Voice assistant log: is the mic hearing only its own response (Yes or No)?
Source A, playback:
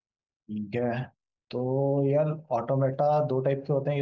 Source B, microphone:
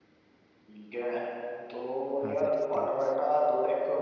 No